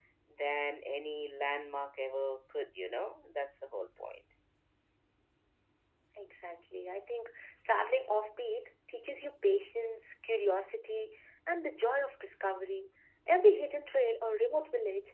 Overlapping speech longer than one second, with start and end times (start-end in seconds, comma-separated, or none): none